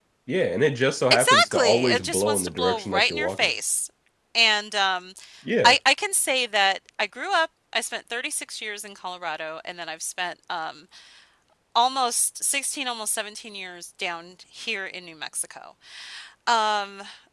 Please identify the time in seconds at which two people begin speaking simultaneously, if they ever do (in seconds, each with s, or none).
1.1 s